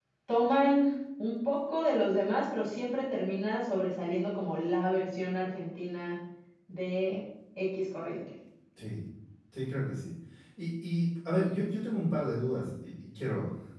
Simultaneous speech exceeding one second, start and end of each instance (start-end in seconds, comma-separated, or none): none